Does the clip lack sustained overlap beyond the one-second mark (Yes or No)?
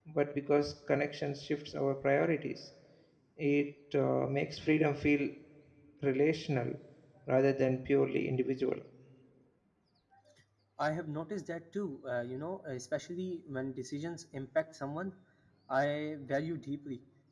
Yes